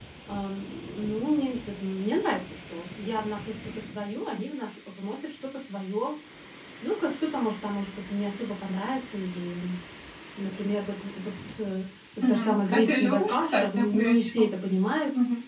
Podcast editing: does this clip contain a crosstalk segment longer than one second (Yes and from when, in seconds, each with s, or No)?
Yes, from 12.2 s